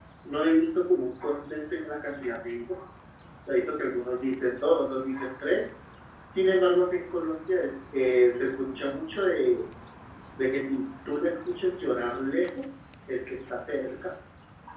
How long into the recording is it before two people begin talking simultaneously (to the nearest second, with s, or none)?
none